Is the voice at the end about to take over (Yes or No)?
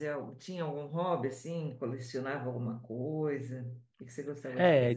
Yes